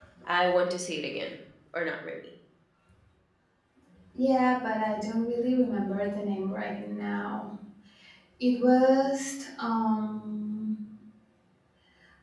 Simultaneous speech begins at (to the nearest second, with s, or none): none